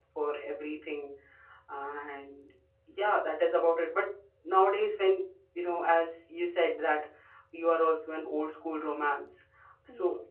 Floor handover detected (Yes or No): No